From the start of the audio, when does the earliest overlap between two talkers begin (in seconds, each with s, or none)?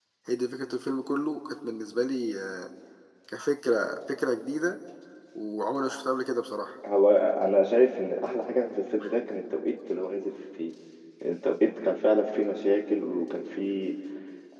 none